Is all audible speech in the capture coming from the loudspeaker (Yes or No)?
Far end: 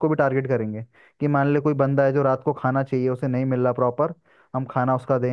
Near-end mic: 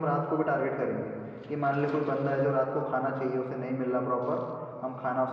Yes